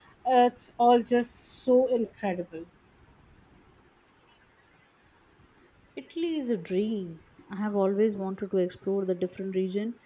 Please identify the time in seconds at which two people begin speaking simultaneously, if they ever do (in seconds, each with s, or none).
none